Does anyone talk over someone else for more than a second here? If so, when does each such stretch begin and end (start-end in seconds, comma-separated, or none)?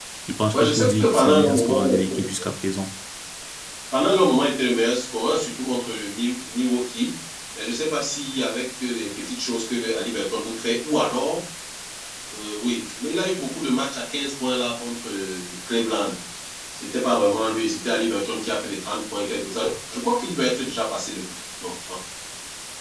0.5-2.2